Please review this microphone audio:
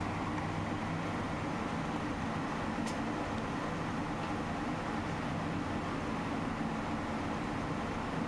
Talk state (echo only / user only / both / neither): neither